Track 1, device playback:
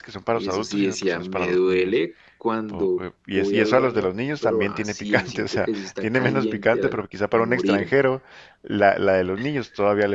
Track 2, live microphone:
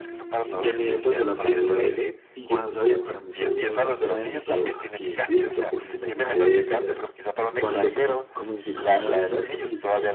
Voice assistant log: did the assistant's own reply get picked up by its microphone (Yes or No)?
Yes